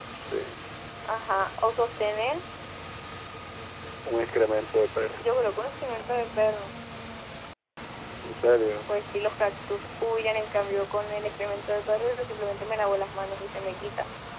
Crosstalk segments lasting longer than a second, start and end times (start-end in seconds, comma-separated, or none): none